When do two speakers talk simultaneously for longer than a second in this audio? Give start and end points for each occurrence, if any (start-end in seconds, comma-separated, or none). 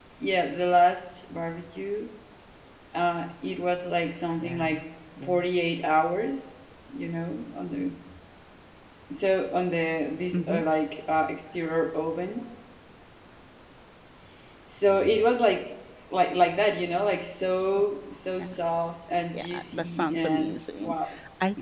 19.3-21.0